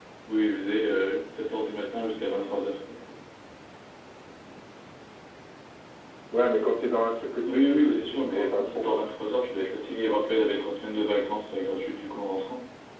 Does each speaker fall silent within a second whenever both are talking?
No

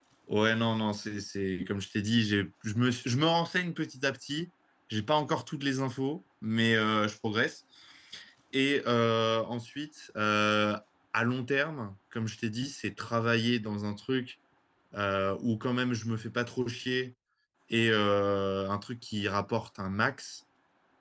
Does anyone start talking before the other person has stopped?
No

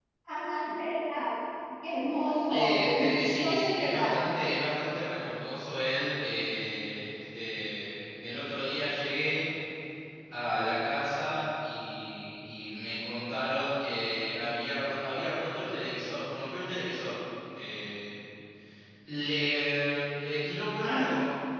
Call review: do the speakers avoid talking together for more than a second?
No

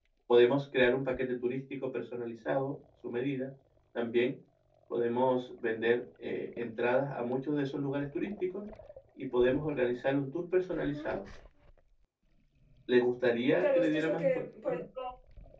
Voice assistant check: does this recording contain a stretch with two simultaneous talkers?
Yes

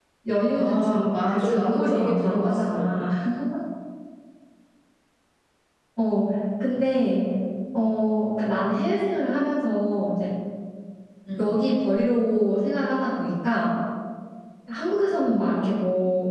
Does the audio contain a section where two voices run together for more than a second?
Yes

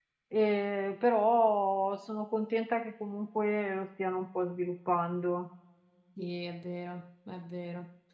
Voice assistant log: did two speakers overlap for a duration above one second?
No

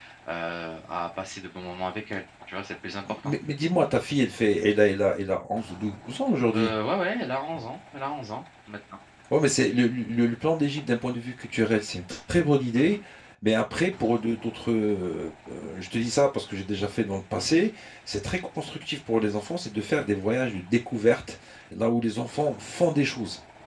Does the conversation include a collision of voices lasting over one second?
No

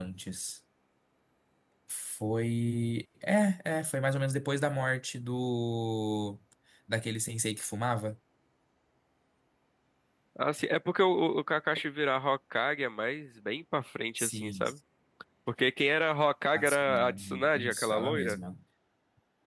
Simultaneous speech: Yes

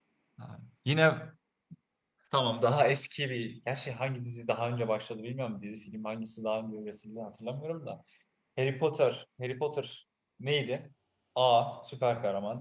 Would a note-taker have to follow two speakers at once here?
No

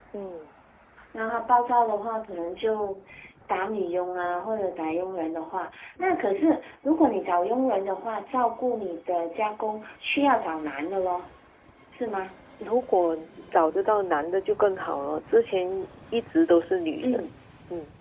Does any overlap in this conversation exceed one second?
No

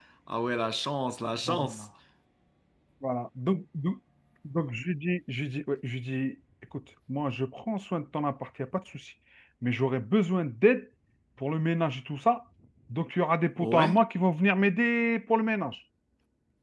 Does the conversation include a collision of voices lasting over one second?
No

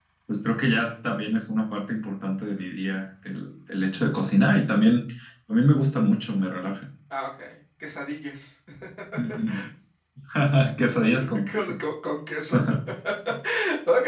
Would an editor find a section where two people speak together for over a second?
No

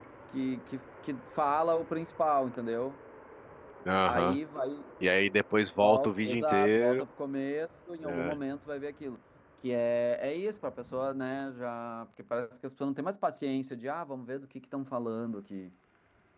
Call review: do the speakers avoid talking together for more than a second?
No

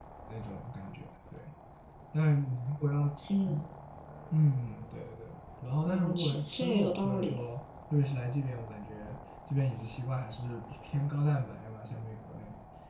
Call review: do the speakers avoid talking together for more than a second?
No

